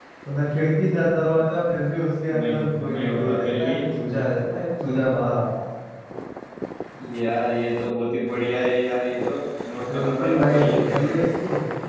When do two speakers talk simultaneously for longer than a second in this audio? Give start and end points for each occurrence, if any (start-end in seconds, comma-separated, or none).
2.4-3.7, 9.9-11.2